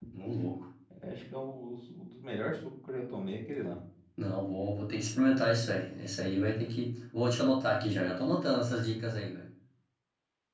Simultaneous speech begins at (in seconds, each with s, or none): none